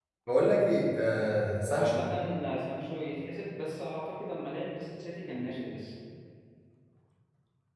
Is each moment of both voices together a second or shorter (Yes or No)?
Yes